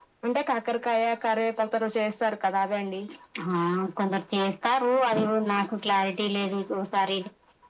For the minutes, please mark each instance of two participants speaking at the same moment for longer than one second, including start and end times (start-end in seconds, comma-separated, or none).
none